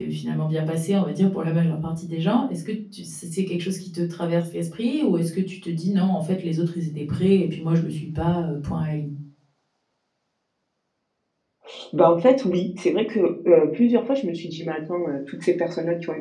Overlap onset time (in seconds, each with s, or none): none